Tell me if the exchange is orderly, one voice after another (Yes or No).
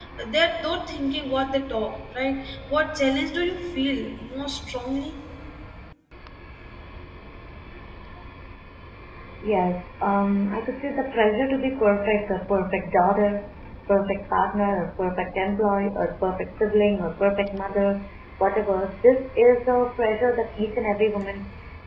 Yes